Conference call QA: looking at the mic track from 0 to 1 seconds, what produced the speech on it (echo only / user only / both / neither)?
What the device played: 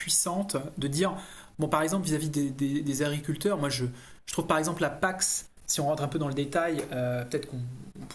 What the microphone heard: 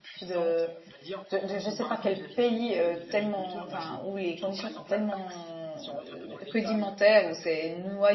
both